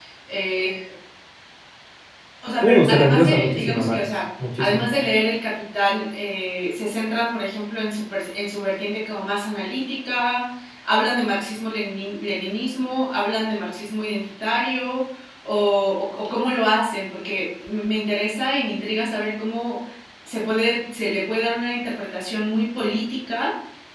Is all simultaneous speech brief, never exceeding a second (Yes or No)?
No